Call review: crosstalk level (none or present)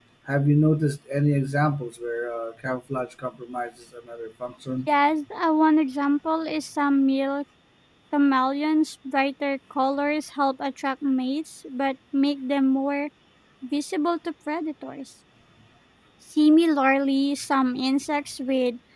none